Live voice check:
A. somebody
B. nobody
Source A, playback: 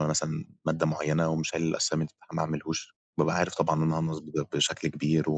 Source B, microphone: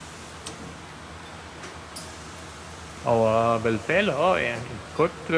A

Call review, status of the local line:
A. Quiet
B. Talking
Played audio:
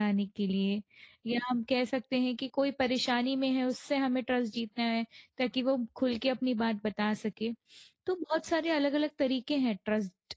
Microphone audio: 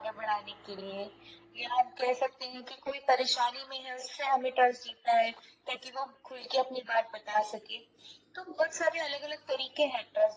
A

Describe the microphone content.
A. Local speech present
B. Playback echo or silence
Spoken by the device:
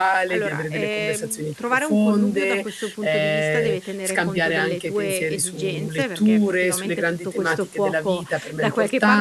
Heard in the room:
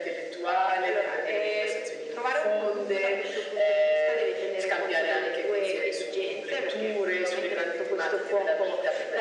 B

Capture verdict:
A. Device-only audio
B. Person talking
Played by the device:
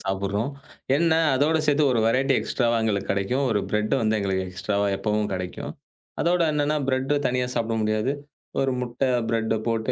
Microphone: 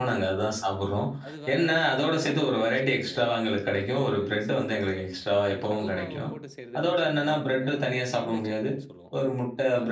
B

